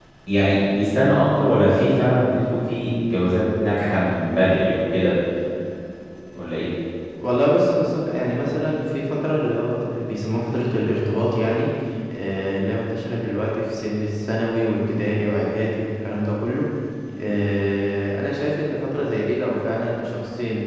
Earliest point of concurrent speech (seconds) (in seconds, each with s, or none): none